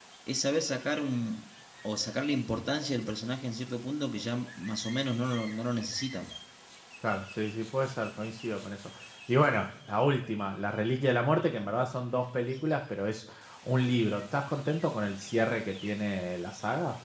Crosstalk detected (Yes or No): No